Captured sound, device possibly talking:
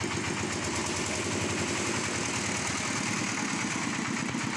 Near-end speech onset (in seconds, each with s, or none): none